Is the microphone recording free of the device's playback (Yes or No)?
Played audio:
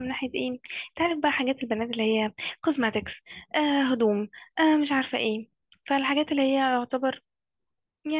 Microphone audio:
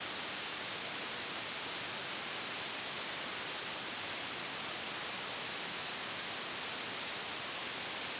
Yes